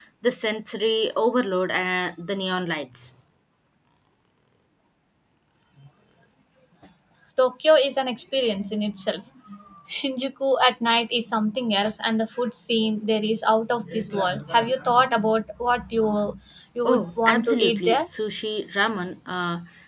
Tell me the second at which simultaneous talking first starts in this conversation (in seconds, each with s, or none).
16.9 s